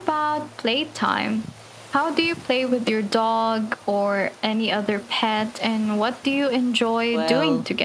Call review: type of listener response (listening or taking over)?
taking over